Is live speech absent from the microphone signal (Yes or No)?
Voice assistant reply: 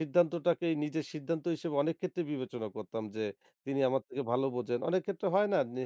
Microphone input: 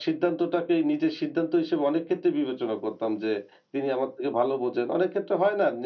Yes